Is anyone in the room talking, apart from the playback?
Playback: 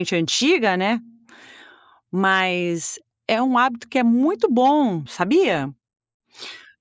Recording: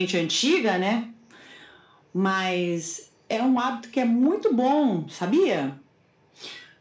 No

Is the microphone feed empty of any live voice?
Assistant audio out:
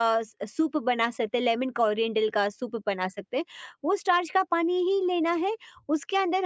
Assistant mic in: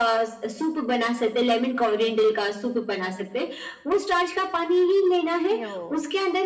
No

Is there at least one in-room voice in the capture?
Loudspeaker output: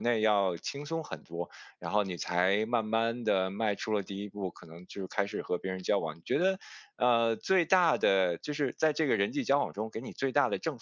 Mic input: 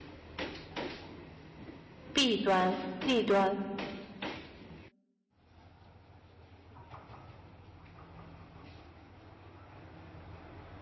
Yes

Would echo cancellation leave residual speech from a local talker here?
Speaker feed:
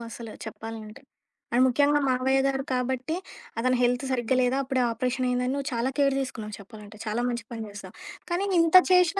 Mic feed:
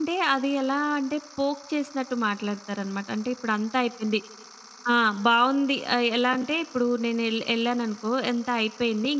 Yes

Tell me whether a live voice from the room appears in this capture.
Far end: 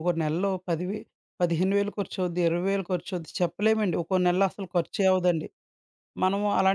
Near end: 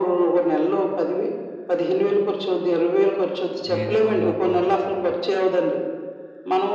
Yes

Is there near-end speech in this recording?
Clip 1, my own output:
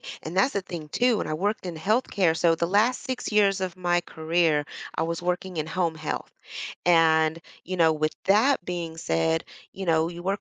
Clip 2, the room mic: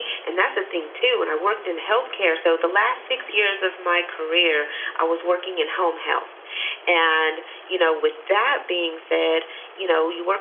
No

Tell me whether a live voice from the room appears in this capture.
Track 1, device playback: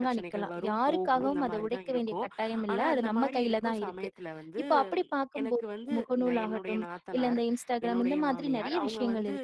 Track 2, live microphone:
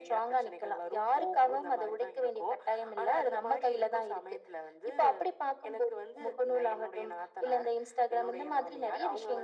No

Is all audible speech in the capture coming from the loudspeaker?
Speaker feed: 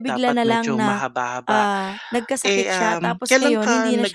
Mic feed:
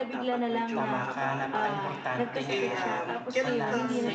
No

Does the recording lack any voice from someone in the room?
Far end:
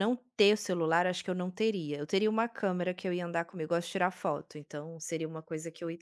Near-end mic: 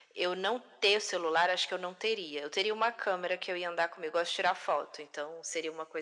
Yes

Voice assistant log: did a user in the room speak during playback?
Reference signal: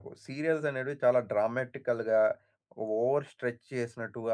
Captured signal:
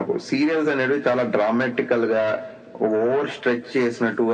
No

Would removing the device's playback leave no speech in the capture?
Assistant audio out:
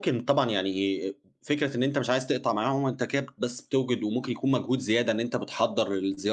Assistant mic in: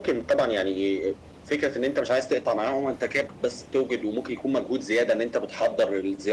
Yes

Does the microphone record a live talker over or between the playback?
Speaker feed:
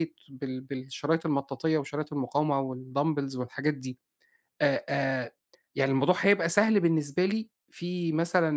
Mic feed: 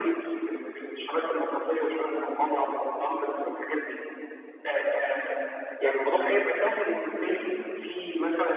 No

